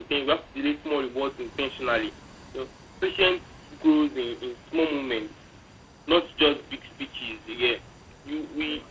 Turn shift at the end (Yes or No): No